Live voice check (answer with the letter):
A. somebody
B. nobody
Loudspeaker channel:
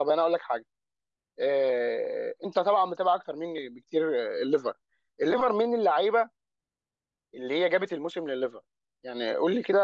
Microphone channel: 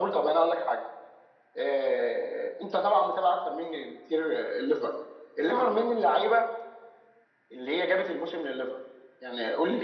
B